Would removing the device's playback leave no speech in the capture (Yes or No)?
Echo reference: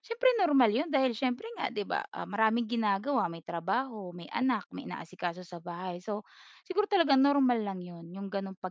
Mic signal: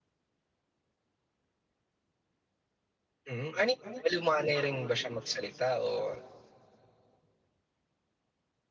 No